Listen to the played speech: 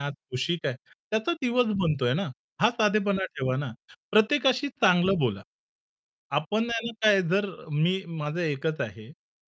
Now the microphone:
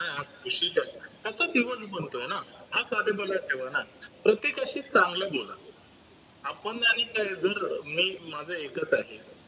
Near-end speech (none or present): none